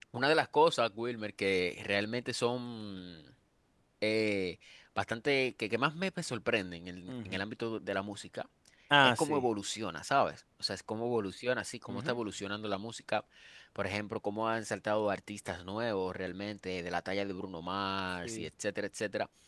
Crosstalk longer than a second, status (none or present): none